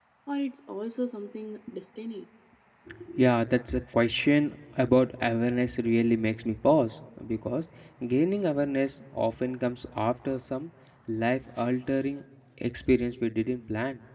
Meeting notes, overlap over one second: none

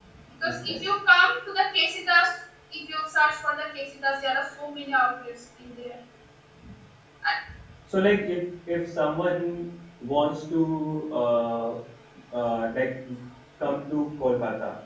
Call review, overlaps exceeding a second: none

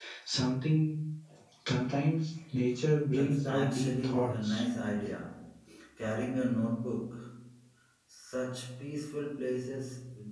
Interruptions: present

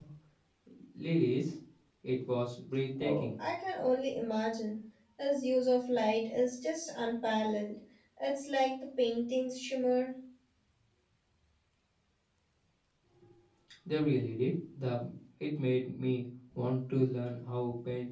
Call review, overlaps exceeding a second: none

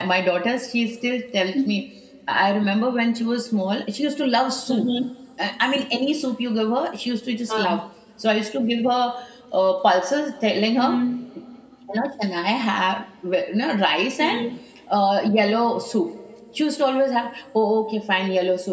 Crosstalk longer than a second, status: none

